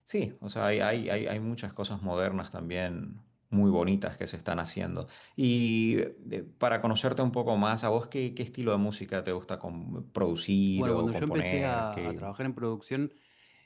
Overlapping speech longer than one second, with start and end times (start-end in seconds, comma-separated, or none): 10.7-12.2